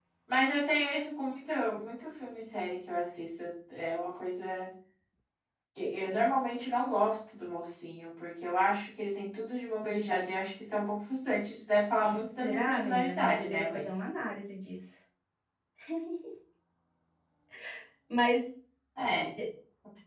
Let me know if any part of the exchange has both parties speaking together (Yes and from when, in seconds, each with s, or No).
Yes, from 12.4 s